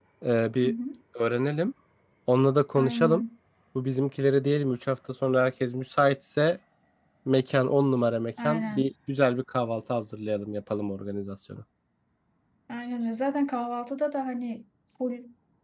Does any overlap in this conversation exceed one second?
No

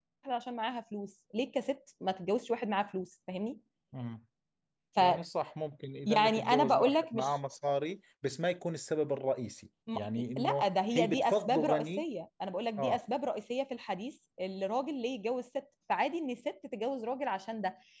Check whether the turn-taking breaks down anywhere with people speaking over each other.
Yes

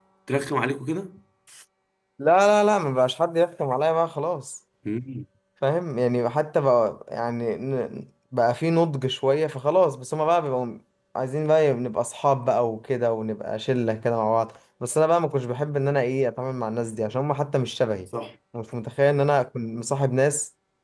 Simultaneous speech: No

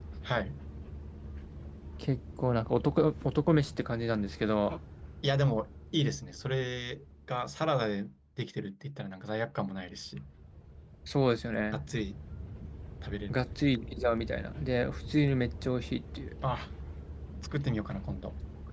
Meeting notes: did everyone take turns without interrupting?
Yes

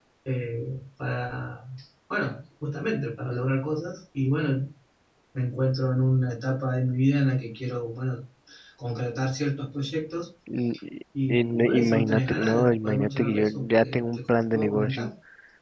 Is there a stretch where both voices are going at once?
Yes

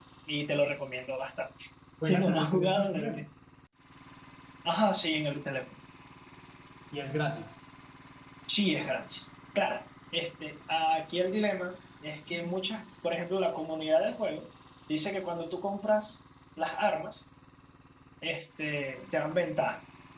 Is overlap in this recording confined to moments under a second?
No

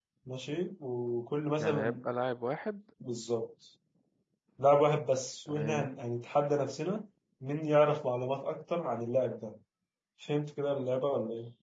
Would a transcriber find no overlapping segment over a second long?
Yes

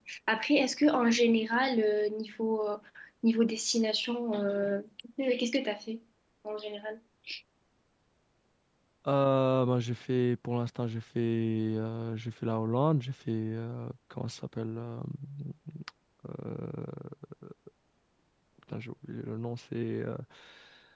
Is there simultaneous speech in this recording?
No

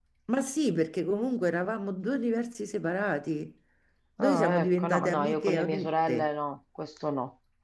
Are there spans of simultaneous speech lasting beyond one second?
Yes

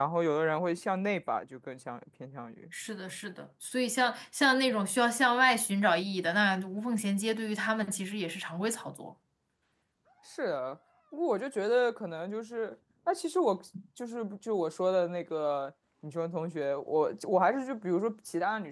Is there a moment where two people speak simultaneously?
No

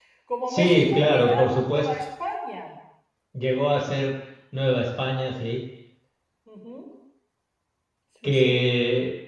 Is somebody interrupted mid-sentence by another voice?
Yes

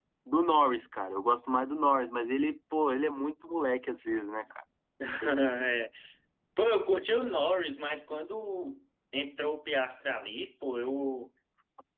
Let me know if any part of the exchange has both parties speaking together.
No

